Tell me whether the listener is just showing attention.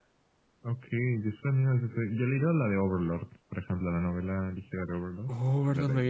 No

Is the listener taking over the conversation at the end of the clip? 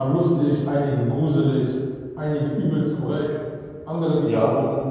No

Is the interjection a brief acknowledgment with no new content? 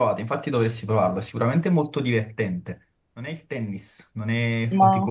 Yes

